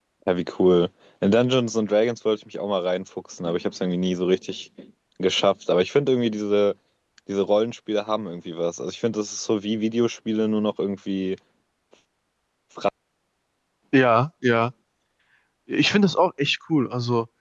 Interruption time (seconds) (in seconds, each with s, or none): none